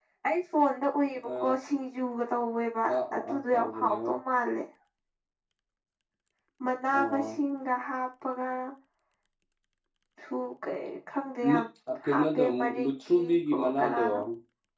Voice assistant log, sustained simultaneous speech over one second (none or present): present